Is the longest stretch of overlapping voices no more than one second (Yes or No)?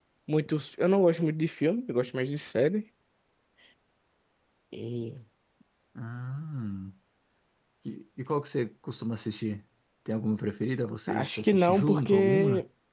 No